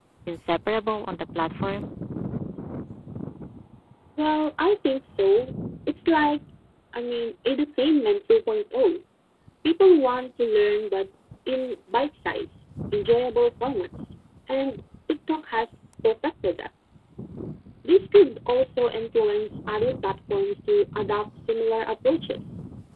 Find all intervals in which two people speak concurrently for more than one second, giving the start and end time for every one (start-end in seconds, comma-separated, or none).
none